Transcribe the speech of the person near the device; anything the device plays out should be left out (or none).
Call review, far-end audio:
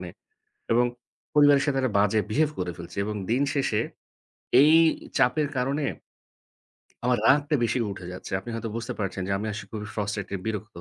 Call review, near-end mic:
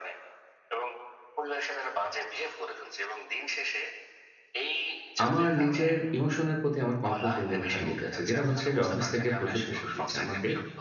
আমার নিজের ইমোশনের প্রতি আমার কন্ট্রোল দিন, দিন হারিয়ে যাচ্ছে। যেটা হচ্ছে যে অফিস থেকে প্রচুর প্রেশার দিচ্ছে আমাকে।